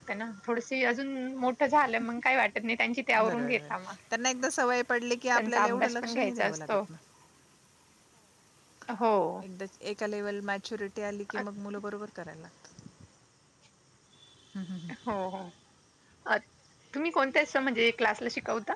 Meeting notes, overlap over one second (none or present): present